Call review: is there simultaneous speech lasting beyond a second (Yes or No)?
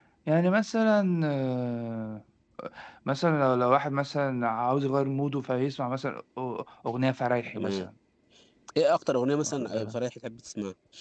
No